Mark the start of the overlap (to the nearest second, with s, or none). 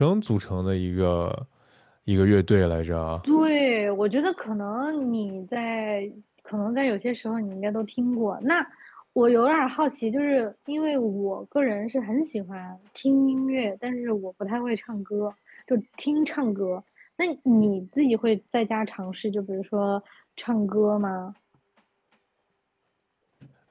none